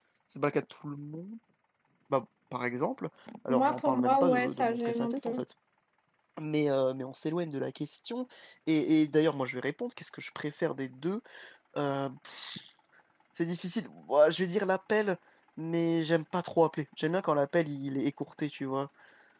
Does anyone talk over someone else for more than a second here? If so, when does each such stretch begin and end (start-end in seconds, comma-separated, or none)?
3.5-5.4